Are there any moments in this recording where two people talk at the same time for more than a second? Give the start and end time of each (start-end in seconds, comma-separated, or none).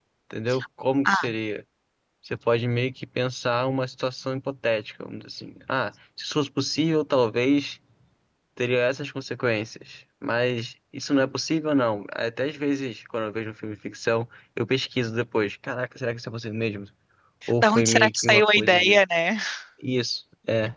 17.6-19.0